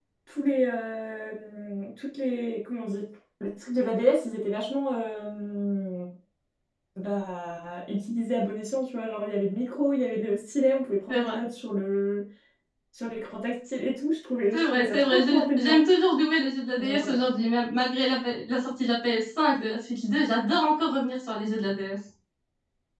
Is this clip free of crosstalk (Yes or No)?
No